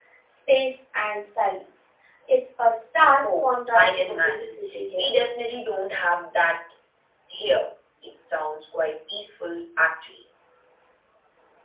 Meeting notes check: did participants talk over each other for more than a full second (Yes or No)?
Yes